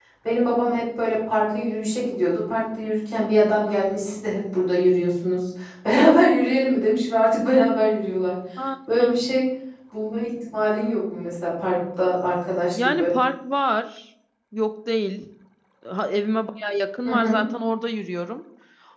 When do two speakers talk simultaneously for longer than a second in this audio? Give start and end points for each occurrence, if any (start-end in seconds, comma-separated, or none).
none